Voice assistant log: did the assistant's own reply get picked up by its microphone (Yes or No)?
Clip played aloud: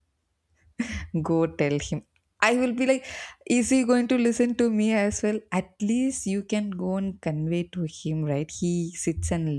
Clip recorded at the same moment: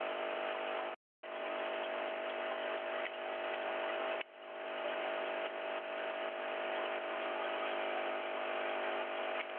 No